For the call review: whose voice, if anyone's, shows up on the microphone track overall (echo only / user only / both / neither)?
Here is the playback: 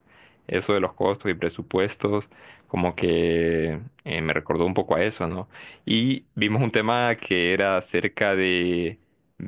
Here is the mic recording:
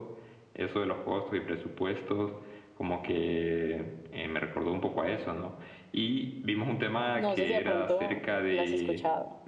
both